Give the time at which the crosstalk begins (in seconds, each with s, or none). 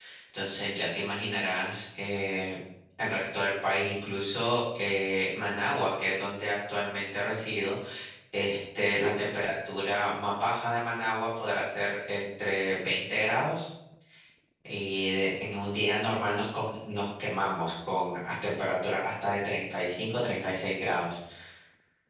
none